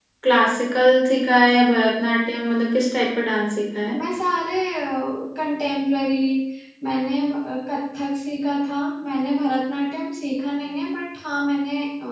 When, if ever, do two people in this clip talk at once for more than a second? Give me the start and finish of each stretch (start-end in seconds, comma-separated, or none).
none